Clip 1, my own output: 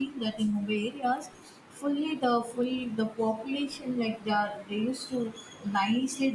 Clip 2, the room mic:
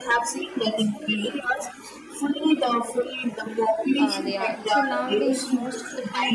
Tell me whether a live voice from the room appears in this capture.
Yes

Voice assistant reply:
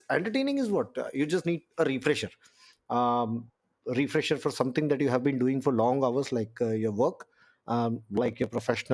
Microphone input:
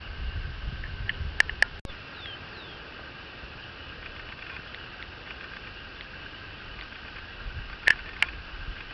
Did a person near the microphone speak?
No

